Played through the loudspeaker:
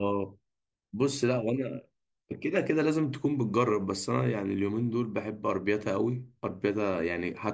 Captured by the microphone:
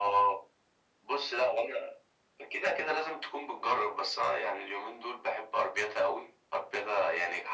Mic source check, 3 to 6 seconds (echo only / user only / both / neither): echo only